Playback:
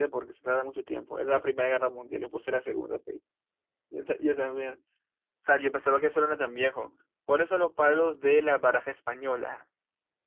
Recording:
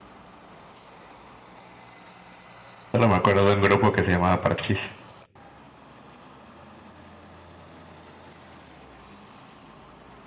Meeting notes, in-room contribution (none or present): present